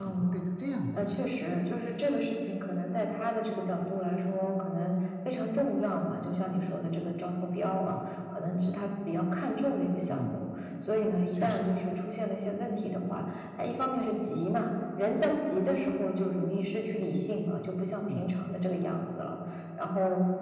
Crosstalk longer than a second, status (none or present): none